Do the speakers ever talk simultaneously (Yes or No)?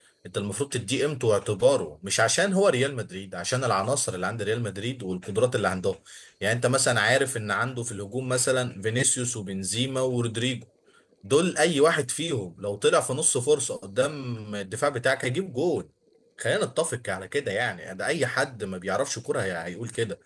No